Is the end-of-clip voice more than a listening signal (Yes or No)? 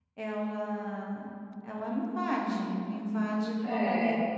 No